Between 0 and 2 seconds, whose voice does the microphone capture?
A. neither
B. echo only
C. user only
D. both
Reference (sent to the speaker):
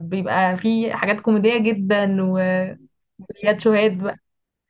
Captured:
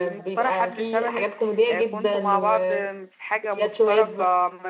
D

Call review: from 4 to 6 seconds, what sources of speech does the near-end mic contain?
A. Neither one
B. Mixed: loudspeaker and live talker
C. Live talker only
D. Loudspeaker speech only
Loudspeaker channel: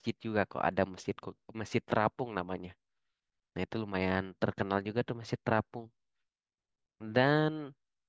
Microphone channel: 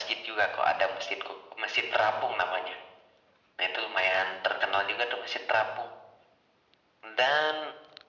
D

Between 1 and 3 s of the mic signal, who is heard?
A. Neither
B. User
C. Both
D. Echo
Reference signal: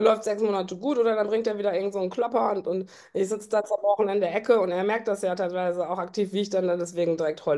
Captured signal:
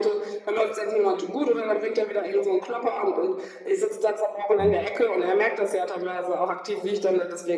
D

